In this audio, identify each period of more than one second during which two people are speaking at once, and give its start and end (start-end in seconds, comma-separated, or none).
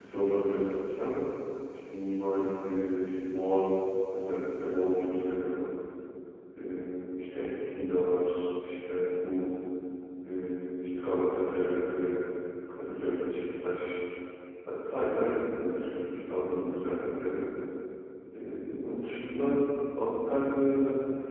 none